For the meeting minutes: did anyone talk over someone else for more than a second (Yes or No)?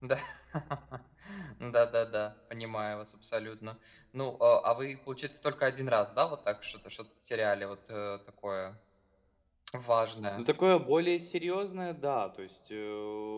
No